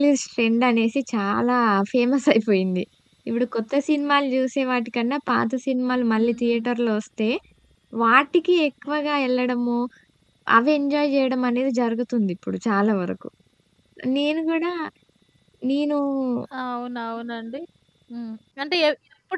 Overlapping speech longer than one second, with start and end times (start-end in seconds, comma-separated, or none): none